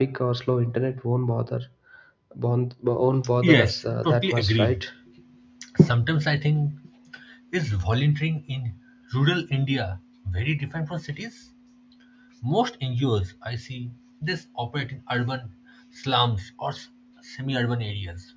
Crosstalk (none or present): present